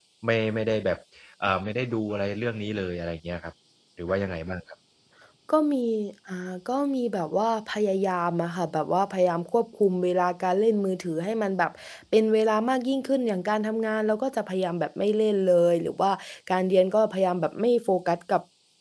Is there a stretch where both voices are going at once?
No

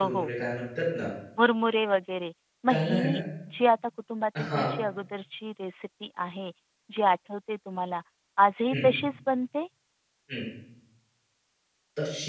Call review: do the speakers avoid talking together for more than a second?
Yes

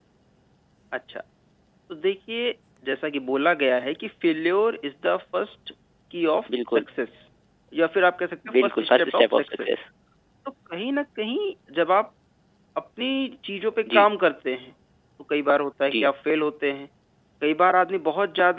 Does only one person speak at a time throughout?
No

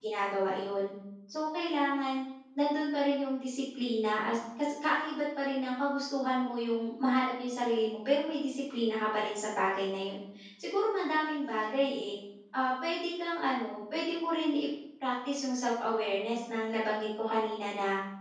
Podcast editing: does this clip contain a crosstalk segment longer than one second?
No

